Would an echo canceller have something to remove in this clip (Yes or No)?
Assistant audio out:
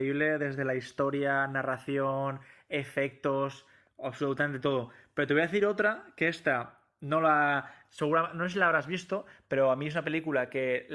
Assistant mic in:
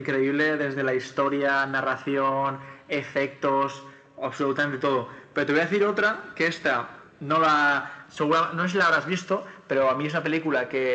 Yes